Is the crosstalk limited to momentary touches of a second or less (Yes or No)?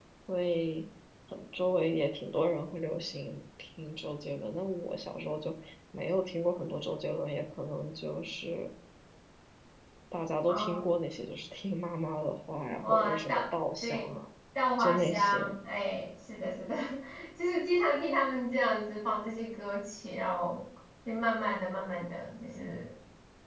No